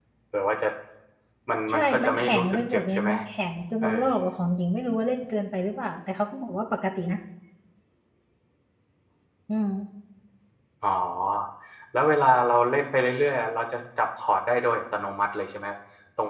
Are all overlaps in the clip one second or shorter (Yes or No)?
No